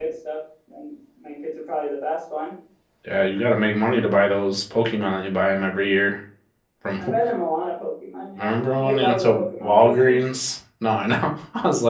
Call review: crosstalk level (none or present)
present